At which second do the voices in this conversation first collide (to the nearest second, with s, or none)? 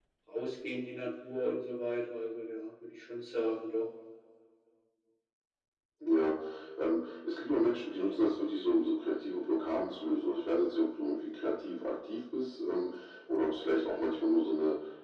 none